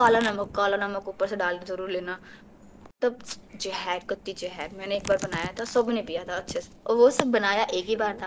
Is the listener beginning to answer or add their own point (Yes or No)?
No